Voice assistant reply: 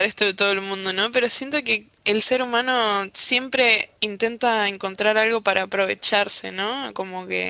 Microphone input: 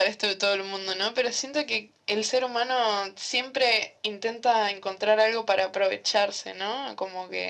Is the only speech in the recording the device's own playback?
Yes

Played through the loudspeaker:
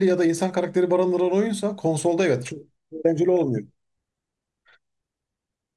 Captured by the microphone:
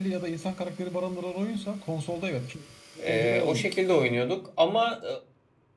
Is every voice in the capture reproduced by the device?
No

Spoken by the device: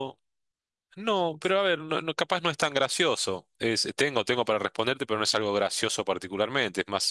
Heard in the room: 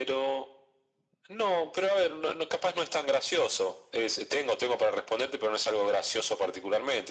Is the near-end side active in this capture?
No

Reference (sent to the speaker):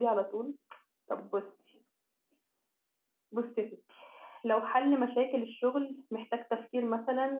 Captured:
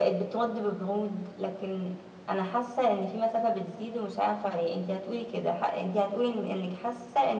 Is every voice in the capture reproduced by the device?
No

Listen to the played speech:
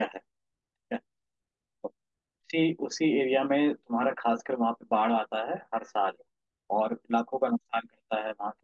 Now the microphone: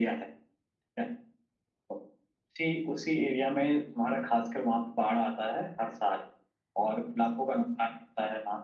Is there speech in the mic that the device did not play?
No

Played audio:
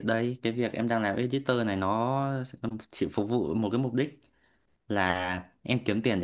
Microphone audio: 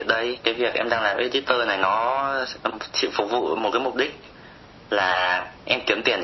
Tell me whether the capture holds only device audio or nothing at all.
Yes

